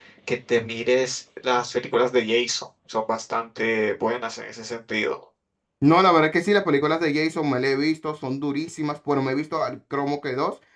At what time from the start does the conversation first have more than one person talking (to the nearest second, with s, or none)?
none